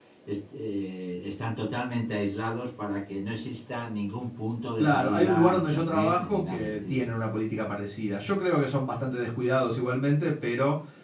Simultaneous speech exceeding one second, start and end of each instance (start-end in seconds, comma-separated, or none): 4.8-7.1